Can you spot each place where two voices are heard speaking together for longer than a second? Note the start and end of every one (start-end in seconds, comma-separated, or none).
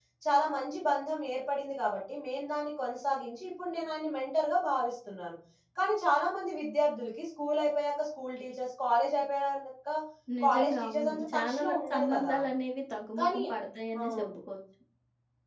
10.5-12.4